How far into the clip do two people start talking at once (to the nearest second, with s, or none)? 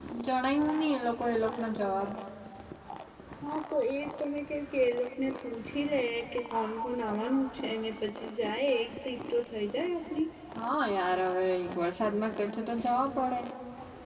none